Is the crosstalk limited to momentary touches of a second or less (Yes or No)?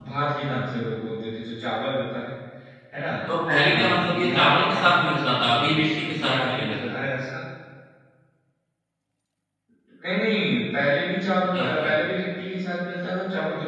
No